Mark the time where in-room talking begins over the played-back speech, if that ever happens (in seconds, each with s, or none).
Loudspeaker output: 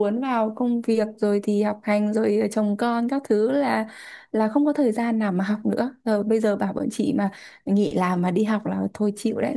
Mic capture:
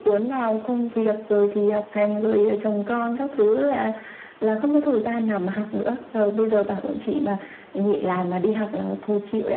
none